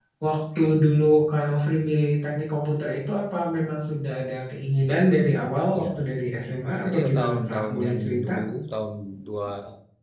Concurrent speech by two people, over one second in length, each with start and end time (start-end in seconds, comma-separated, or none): 6.8-8.3